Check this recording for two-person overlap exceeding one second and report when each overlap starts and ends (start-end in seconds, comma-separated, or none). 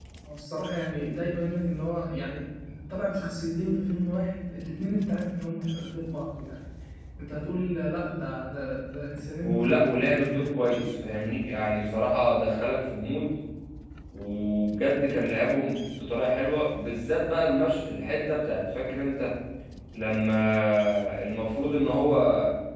9.4-10.8